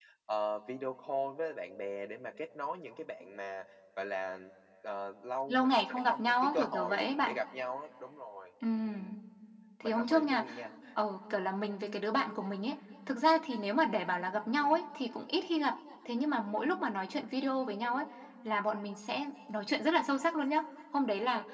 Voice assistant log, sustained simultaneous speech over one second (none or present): present